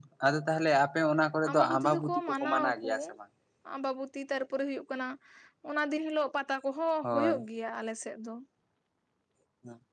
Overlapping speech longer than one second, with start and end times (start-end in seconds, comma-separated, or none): 1.5-2.9